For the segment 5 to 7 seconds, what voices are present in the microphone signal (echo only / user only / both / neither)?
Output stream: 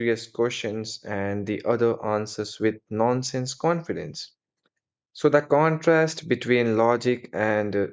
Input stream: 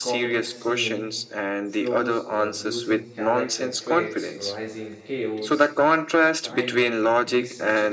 both